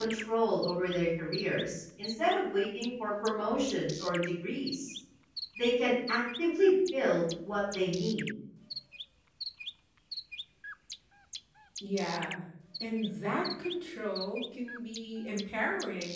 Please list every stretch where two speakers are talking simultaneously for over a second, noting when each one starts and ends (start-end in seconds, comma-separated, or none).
none